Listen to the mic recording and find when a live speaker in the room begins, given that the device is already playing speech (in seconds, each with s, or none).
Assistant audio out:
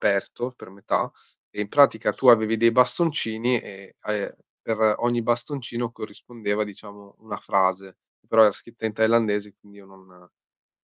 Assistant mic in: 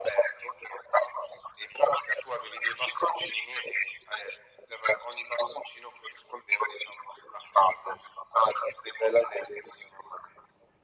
none